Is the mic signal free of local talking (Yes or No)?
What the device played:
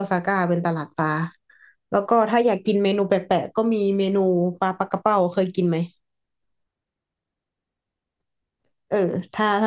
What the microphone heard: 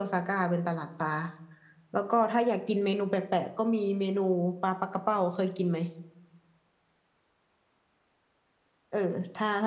Yes